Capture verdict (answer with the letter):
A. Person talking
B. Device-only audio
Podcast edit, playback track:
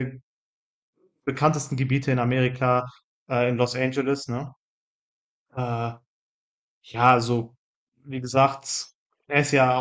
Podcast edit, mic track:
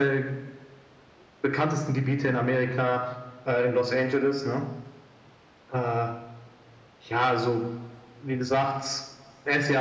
B